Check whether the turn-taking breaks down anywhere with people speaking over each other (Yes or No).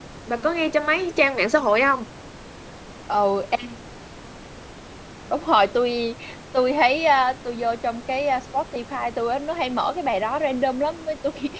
No